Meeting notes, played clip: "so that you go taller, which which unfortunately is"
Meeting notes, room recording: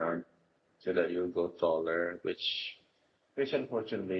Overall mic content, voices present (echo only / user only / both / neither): echo only